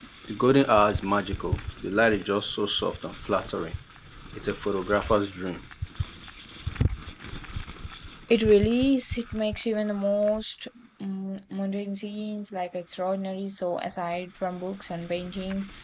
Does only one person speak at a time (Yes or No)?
Yes